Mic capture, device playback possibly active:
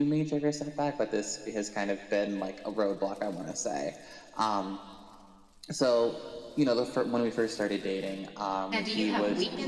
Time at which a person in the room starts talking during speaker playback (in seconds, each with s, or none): 8.0 s